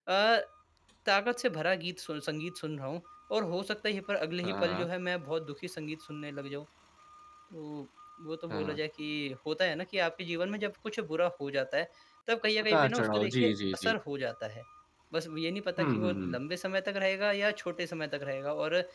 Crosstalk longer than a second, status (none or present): present